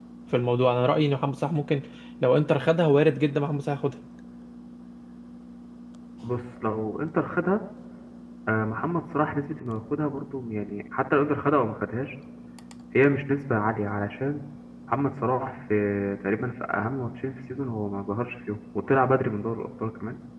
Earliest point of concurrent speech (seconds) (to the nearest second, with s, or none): none